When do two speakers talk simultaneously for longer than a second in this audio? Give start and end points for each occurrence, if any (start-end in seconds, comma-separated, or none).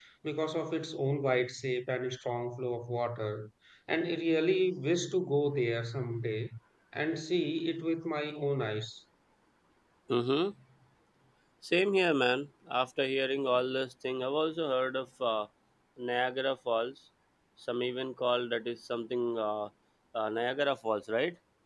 none